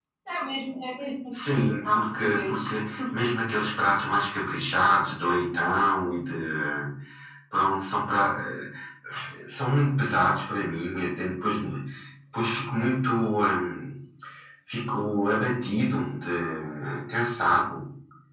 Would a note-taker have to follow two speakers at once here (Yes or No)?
Yes